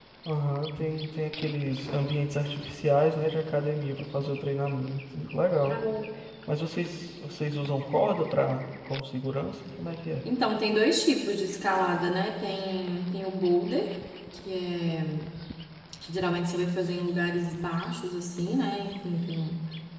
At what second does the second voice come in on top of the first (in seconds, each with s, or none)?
none